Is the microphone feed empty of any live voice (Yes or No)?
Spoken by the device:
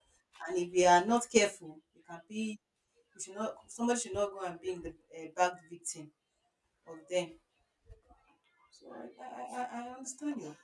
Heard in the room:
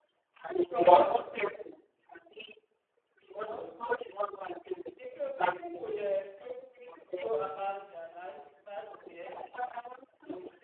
No